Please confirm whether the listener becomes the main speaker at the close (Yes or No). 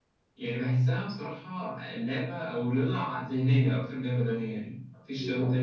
No